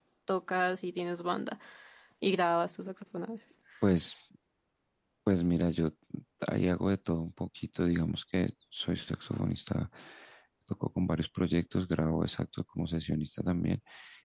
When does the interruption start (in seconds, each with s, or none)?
none